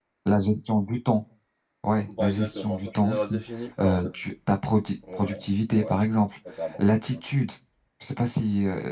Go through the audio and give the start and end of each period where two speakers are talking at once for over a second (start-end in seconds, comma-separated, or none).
2.2-3.4